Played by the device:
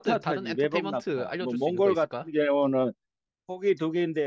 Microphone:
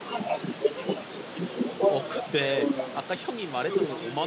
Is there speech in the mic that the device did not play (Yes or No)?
Yes